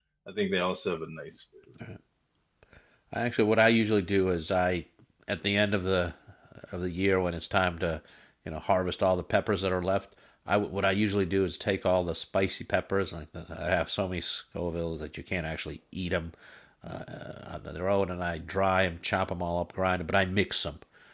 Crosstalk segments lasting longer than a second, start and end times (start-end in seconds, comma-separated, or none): none